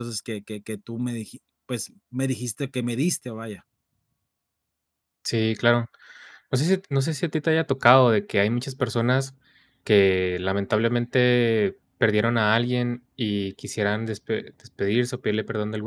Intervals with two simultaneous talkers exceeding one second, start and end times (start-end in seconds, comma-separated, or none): none